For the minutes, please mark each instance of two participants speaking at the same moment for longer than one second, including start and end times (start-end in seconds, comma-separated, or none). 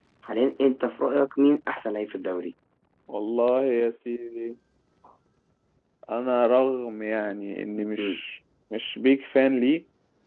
none